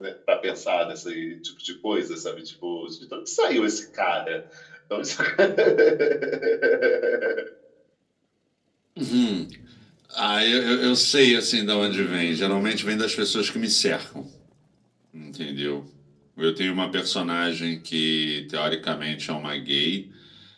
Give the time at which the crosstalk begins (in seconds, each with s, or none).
11.8 s